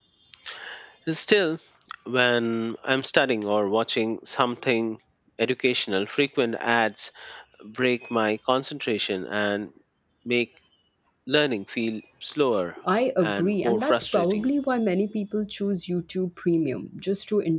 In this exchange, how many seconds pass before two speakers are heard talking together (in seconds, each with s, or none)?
13.2 s